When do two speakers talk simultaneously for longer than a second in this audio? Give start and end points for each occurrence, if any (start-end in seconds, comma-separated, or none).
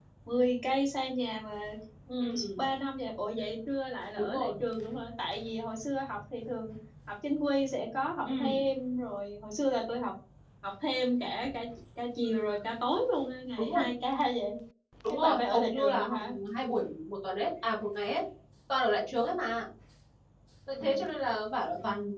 15.1-16.3